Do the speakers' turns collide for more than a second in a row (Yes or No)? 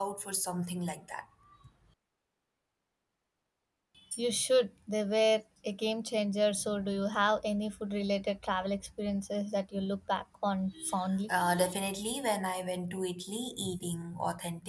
No